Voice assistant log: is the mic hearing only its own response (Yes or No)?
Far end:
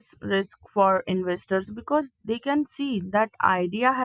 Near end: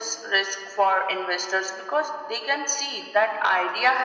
Yes